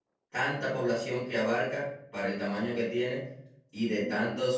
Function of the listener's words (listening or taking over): listening